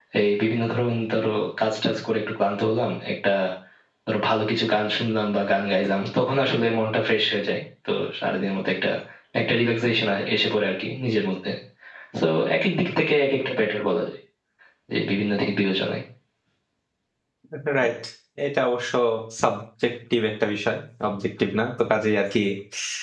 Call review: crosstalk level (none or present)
none